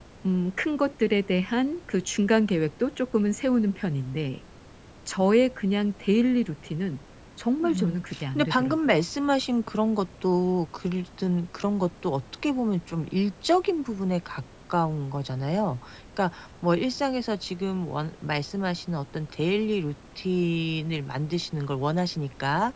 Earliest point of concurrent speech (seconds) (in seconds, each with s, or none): 7.6 s